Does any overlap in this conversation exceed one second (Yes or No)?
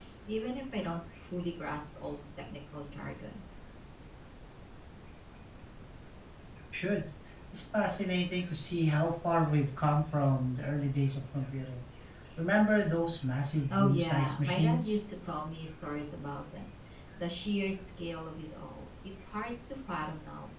Yes